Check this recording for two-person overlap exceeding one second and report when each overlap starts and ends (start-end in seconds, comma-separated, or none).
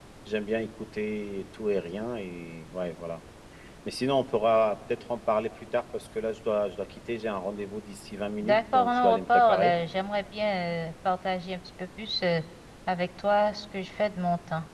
8.4-9.7